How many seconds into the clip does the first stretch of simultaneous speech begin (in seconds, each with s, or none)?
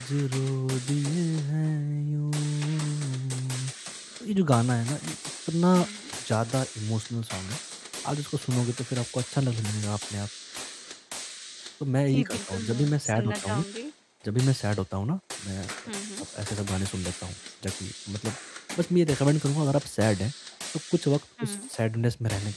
12.1 s